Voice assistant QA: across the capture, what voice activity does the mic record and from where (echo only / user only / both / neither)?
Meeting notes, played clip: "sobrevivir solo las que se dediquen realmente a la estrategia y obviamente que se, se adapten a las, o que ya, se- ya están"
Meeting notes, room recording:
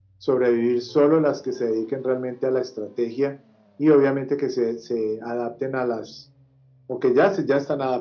echo only